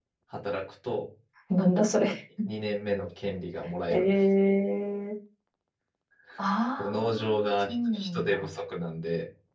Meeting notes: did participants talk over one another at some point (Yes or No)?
Yes